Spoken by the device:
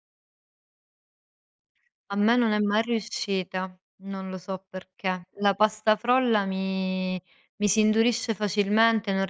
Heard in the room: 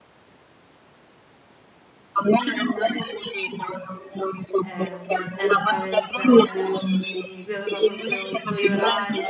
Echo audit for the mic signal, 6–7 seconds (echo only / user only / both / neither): both